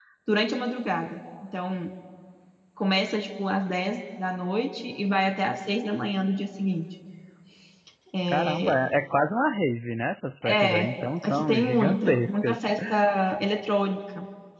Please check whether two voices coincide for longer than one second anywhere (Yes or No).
Yes